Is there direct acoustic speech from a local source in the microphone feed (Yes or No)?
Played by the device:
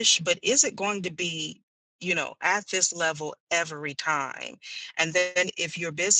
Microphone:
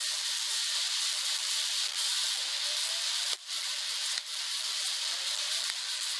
No